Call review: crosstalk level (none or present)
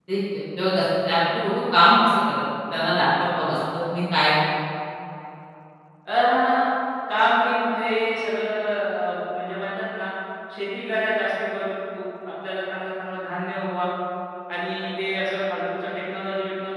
none